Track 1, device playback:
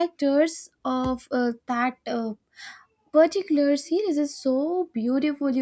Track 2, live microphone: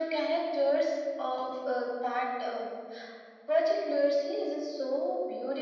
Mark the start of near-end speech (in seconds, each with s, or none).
none